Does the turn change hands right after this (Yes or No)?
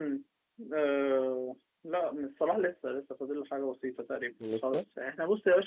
No